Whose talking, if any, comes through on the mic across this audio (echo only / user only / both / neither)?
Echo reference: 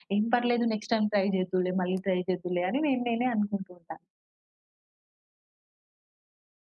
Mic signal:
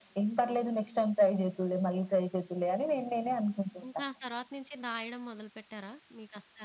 both